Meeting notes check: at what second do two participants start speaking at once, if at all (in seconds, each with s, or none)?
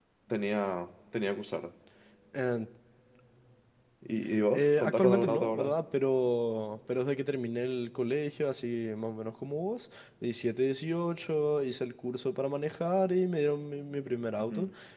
4.5 s